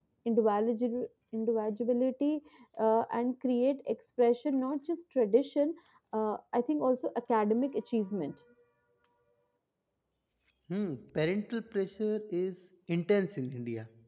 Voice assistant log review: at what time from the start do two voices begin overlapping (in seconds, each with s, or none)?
none